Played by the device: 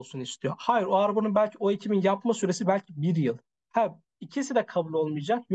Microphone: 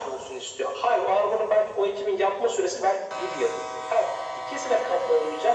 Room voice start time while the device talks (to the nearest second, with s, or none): none